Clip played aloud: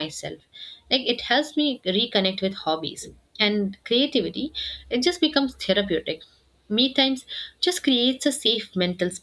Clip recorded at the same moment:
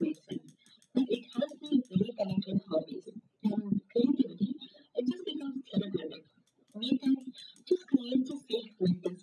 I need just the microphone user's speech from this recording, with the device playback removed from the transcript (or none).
none